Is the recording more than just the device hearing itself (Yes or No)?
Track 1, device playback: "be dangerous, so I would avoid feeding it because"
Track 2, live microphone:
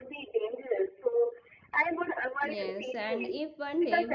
Yes